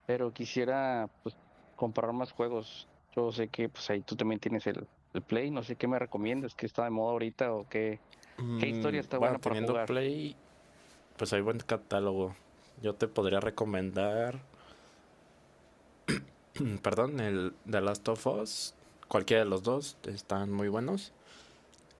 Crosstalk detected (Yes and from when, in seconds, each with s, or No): Yes, from 8.6 s